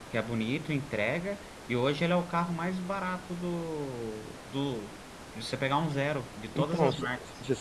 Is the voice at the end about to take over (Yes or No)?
Yes